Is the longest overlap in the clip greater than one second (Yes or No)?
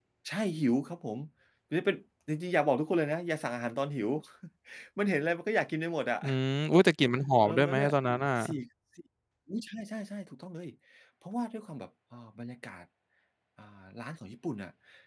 No